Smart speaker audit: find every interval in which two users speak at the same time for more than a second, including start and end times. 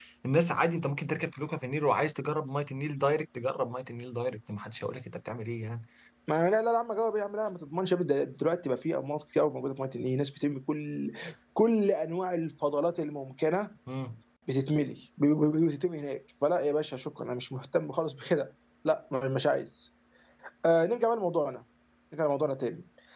none

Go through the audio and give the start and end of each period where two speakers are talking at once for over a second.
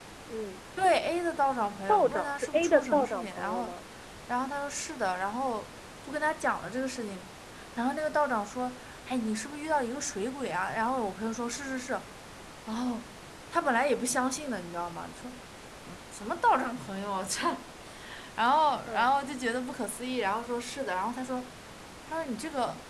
1.9-3.7

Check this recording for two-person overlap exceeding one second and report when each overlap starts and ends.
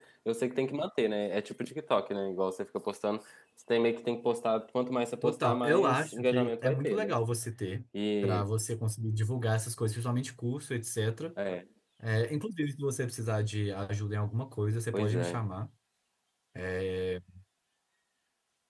5.2-7.1

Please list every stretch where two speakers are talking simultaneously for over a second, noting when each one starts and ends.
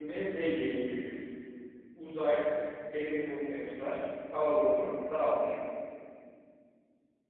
none

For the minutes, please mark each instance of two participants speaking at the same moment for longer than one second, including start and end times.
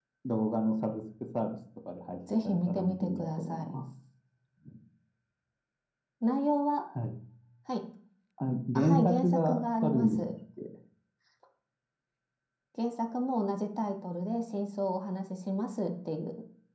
2.5-3.8, 8.8-10.2

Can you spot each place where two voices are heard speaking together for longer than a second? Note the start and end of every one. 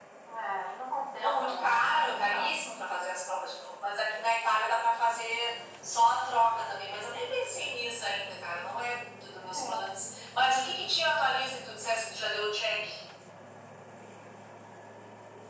1.2-2.6

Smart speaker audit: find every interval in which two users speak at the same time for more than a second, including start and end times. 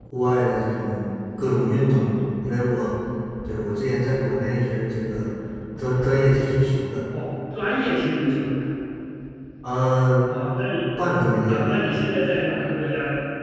none

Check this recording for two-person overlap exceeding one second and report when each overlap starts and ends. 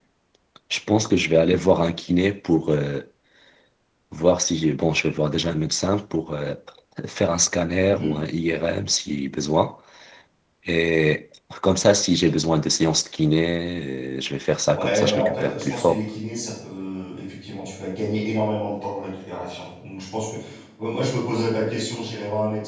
14.7-16.1

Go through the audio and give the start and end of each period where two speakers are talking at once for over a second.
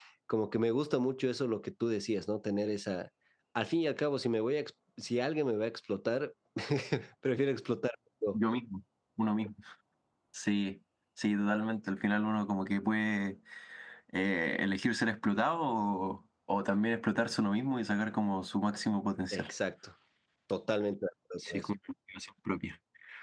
none

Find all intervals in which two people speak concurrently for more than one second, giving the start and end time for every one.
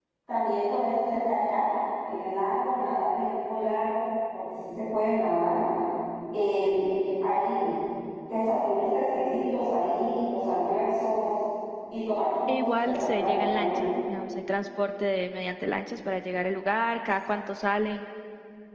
12.5-13.8

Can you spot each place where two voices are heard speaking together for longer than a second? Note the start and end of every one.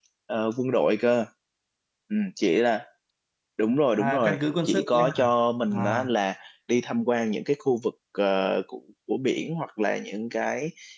4.0-5.3

